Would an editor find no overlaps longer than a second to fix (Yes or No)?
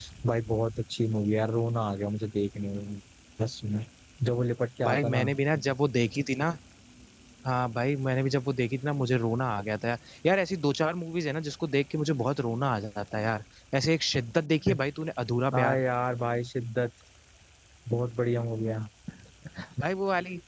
Yes